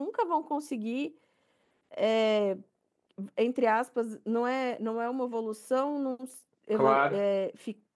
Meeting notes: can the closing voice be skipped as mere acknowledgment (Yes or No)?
Yes